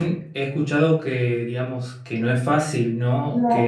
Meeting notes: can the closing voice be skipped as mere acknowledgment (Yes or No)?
Yes